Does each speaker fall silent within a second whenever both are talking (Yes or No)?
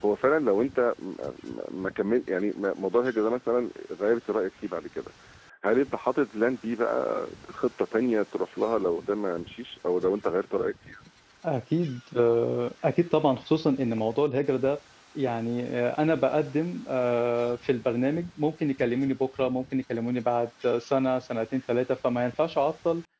Yes